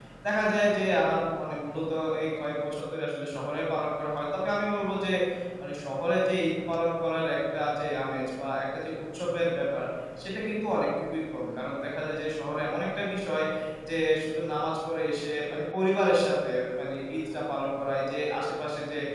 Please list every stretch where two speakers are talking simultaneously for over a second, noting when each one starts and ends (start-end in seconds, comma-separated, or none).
none